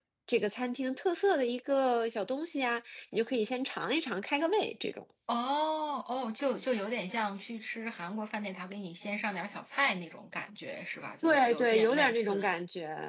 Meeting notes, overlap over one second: present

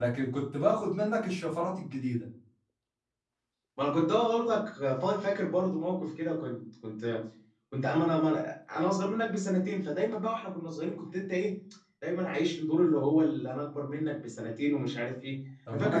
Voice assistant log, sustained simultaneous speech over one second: none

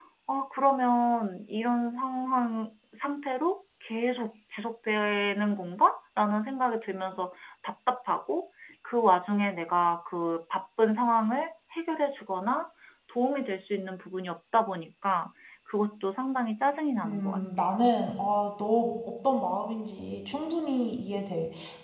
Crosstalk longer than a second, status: none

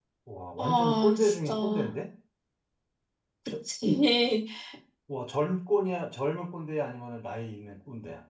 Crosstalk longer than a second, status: present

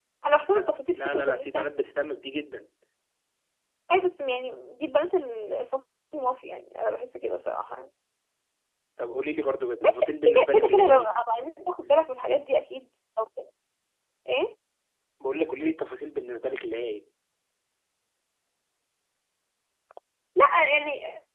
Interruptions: present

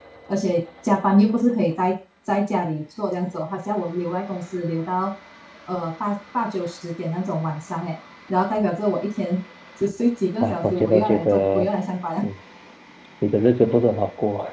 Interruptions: present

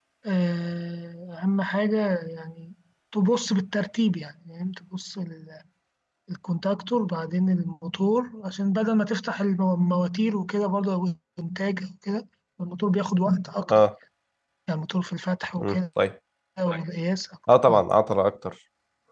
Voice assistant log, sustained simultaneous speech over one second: none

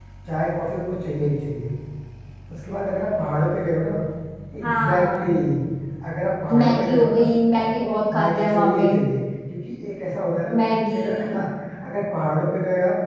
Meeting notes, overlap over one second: present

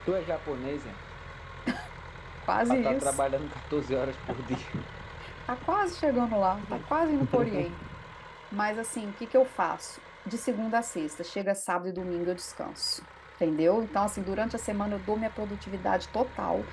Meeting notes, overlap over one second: none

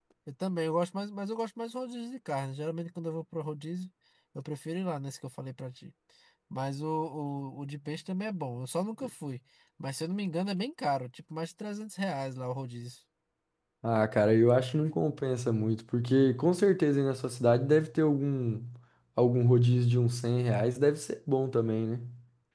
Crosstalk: none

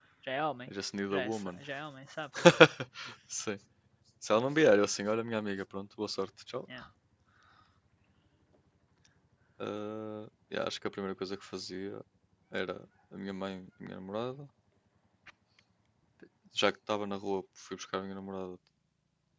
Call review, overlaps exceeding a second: none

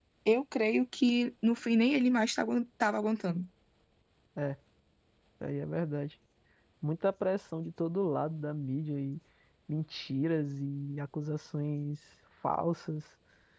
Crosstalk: none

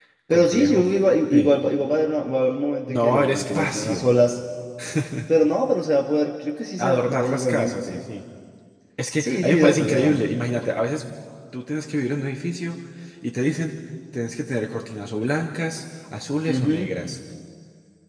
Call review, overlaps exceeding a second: present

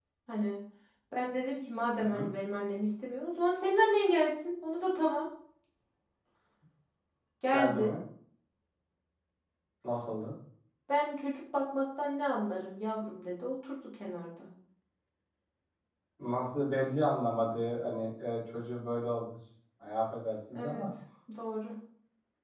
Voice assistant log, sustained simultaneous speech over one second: none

